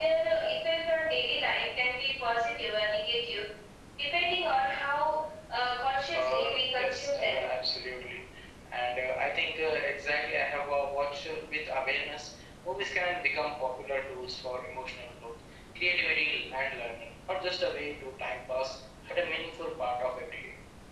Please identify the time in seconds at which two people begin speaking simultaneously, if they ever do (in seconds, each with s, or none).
6.1 s